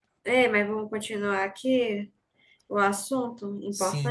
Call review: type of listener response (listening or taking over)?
taking over